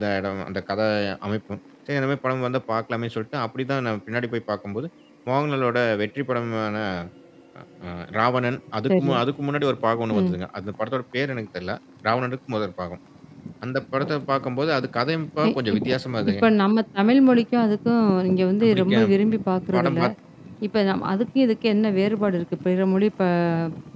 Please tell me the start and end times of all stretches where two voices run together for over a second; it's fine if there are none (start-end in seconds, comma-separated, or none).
none